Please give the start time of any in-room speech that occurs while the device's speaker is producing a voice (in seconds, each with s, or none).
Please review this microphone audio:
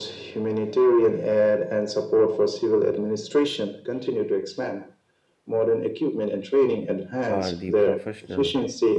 7.3 s